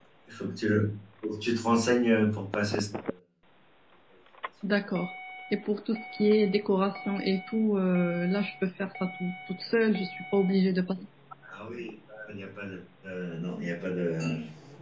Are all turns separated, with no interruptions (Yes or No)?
Yes